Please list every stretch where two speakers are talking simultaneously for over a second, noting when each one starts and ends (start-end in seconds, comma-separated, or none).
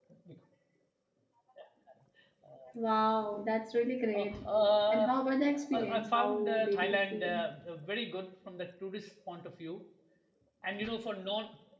5.7-7.4